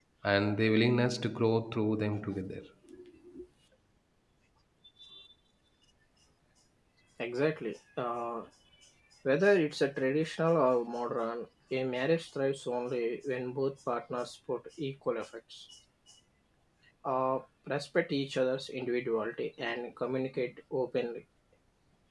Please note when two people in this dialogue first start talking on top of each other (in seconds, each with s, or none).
none